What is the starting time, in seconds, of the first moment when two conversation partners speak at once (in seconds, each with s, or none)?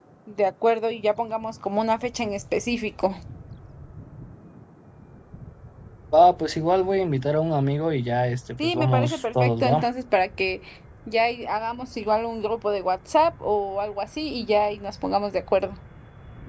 8.6 s